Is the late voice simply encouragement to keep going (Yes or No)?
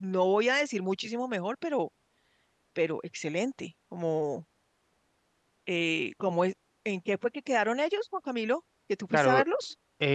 No